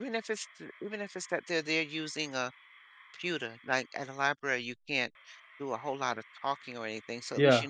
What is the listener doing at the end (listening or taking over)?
listening